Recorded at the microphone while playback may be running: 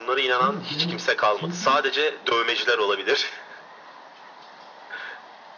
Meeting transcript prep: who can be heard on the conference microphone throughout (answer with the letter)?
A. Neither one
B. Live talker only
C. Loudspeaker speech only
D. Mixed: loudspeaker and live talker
D